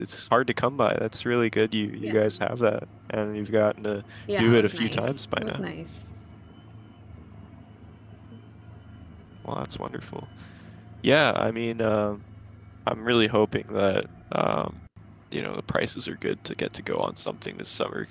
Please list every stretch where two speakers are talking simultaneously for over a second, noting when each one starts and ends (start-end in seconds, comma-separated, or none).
4.4-5.6